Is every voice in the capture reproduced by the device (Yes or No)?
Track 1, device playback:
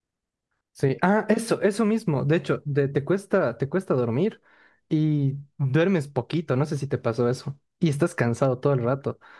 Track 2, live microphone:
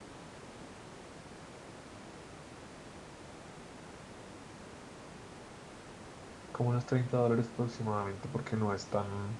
No